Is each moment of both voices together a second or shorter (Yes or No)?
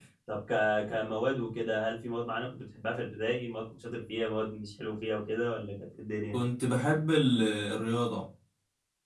Yes